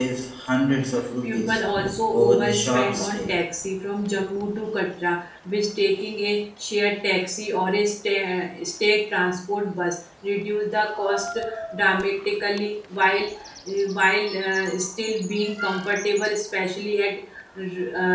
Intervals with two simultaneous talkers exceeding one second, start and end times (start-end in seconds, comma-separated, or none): 2.1-3.4